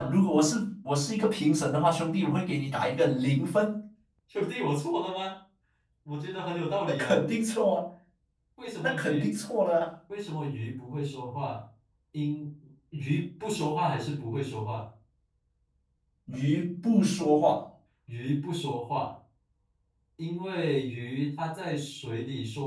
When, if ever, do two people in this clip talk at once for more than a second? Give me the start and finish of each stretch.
none

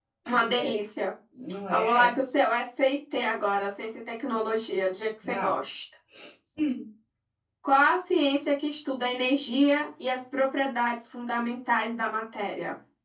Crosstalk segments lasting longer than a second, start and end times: none

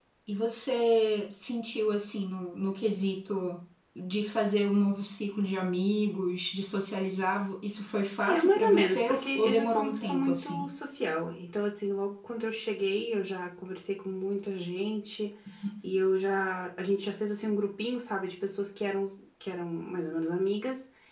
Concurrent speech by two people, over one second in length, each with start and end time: 8.3-10.7

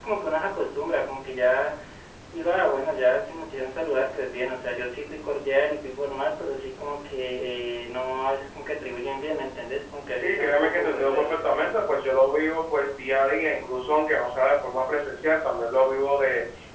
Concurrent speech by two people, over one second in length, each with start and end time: 10.1-11.4

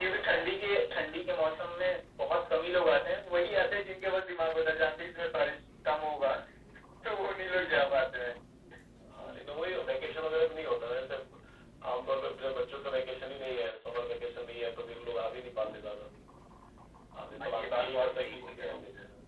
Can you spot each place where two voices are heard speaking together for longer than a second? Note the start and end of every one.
17.4-18.8

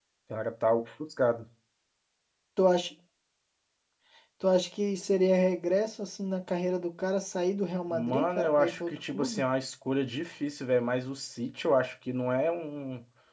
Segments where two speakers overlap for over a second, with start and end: 7.9-9.4

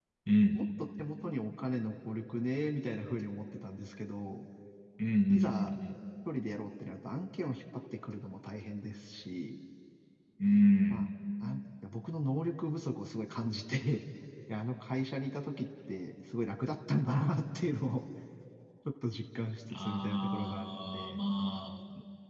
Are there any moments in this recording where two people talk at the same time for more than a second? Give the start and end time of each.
19.9-21.2

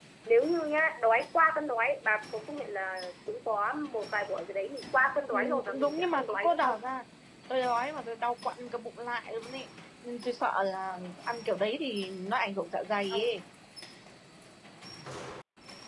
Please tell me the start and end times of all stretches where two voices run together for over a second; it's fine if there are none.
5.3-6.8

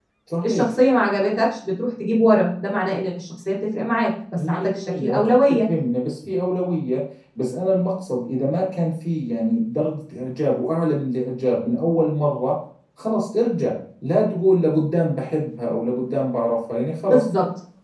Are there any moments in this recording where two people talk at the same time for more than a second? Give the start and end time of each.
4.4-5.6

